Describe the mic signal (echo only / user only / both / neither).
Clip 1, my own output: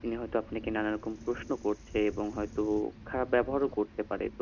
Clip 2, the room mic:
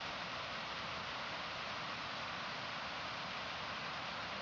neither